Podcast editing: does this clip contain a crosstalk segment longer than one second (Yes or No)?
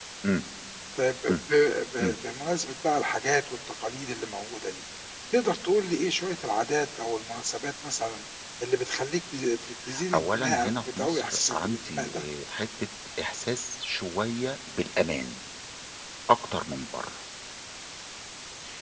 Yes